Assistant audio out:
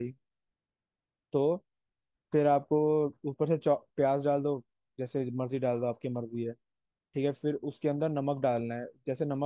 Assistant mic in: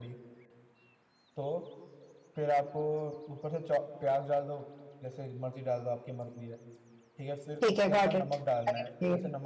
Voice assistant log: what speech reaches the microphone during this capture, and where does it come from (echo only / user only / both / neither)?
both